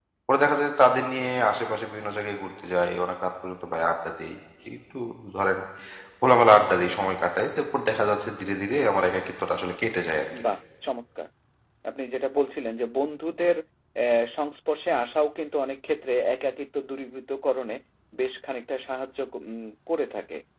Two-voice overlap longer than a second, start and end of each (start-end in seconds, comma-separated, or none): none